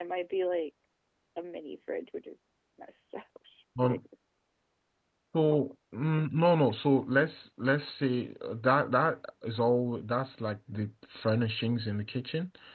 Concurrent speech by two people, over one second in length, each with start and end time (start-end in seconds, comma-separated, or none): none